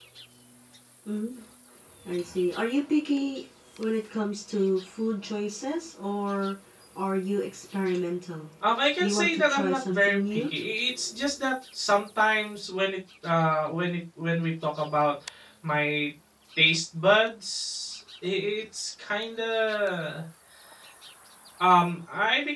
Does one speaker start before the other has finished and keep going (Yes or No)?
Yes